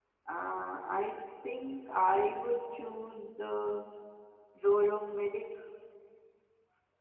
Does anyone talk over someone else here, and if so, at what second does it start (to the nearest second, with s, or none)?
none